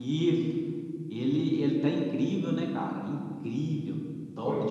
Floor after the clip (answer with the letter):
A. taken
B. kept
A